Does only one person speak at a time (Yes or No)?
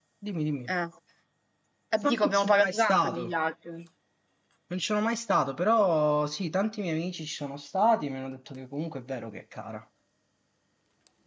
No